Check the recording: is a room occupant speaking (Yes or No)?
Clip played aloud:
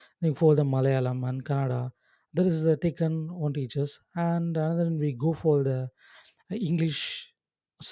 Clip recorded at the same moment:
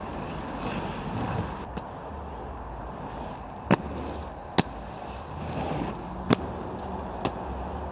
No